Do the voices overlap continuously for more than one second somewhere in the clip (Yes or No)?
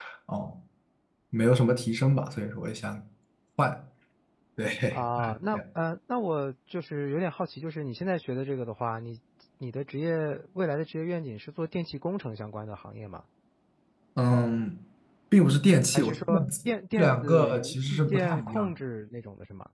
Yes